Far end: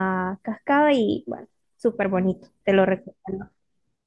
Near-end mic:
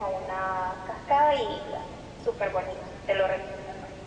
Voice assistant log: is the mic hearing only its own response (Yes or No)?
Yes